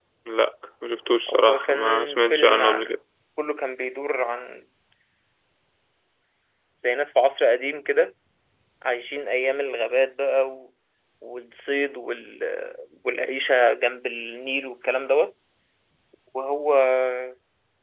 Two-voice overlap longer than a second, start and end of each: 1.5-3.0

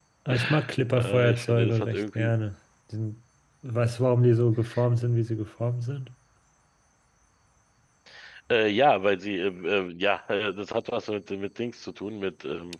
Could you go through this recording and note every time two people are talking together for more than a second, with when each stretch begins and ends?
0.9-2.3

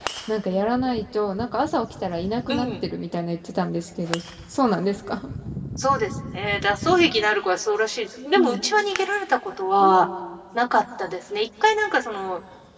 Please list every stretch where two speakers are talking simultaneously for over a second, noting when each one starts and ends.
none

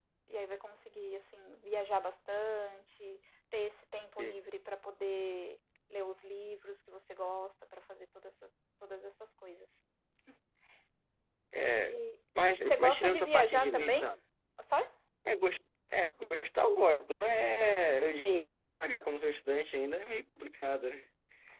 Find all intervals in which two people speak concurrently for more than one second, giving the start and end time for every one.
12.6-14.1

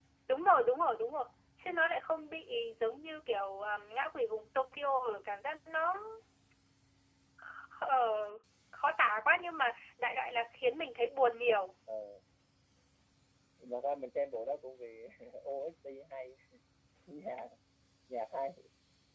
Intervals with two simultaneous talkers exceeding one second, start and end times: none

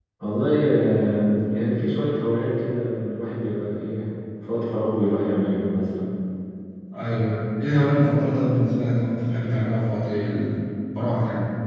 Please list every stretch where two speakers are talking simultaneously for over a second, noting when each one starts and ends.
none

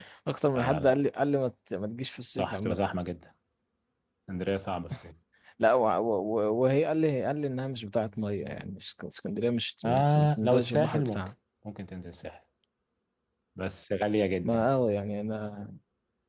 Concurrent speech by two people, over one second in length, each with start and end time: 9.8-11.3

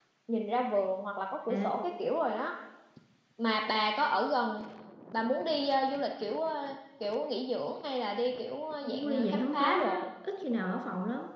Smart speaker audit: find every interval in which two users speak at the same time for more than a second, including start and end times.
8.8-10.1

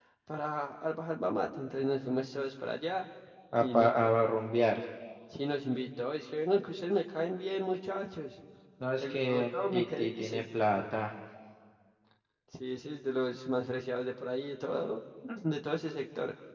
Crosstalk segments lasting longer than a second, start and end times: 9.0-10.4

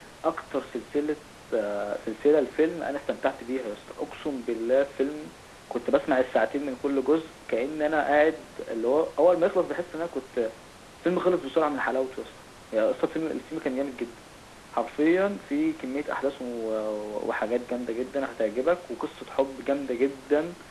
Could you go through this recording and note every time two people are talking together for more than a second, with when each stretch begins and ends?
none

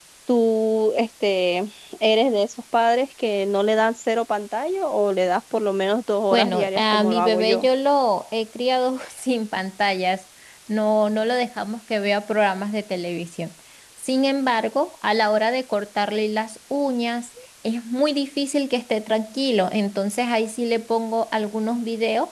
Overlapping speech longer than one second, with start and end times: 6.3-7.7

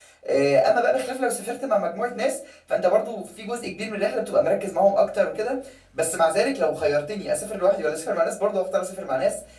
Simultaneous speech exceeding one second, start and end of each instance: none

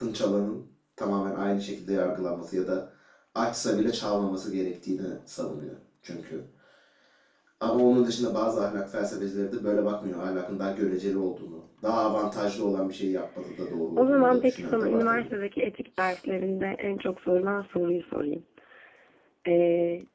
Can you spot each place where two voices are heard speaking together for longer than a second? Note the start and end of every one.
14.0-15.3

